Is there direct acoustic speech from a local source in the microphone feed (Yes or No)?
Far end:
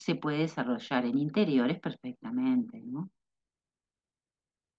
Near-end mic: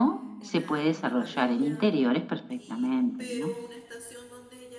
Yes